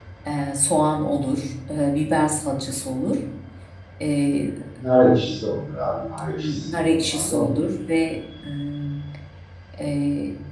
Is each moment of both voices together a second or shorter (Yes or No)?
No